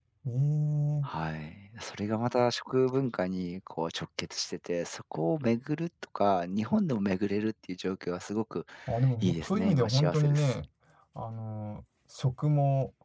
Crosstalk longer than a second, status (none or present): present